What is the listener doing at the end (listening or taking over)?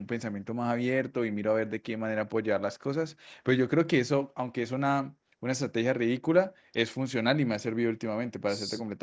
taking over